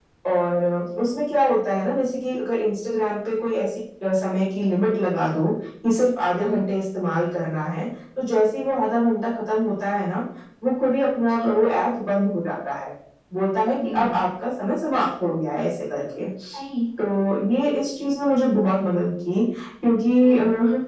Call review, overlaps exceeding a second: none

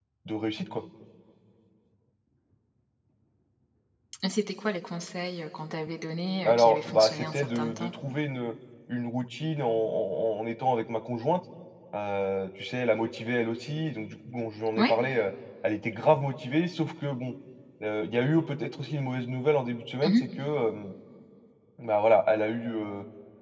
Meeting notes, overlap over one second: present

